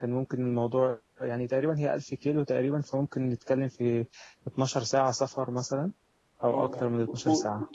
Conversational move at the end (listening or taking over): taking over